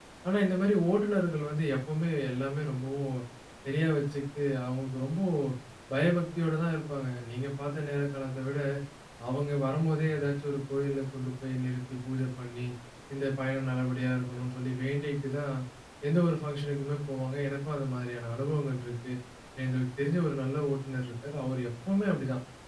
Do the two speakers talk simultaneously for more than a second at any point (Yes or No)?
No